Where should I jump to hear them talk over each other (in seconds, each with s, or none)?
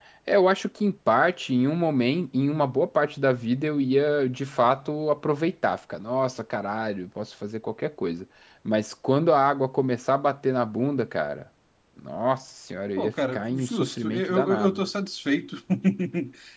13.0 s